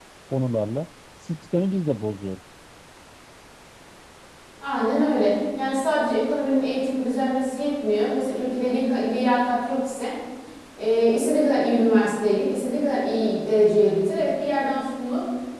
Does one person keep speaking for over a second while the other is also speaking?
No

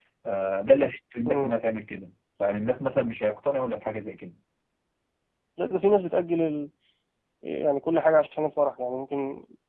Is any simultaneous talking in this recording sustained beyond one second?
No

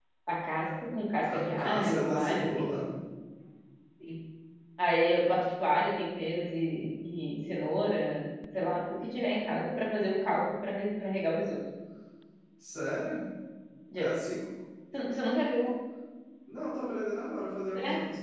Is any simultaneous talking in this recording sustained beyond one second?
Yes, from 1.2 s

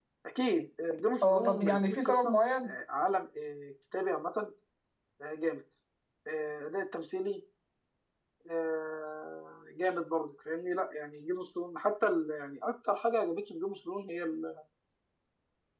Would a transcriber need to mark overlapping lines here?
Yes, from 1.2 s

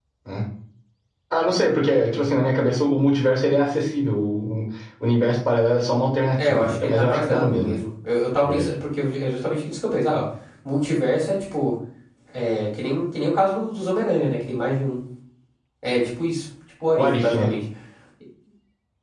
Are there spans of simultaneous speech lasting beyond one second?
Yes, from 6.4 s

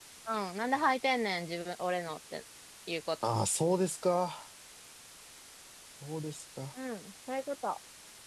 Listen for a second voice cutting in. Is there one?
No

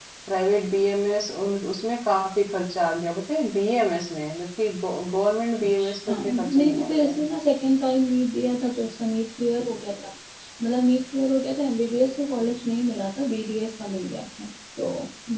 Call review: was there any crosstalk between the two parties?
Yes, from 5.8 s

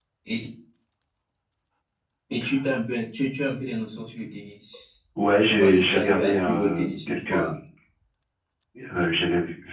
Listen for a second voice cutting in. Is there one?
Yes, from 5.5 s

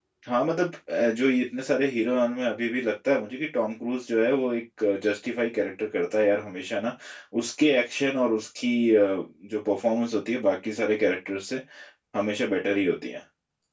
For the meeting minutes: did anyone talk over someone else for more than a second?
No

